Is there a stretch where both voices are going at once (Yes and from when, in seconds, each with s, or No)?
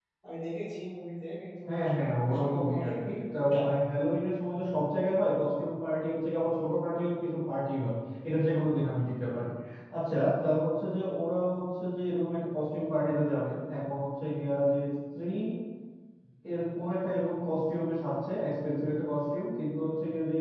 Yes, from 1.7 s